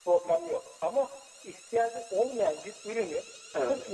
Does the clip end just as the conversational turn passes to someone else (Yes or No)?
No